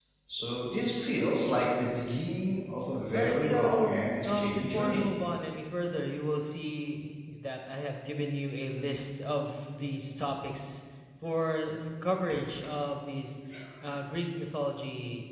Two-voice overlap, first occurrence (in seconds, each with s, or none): 3.1 s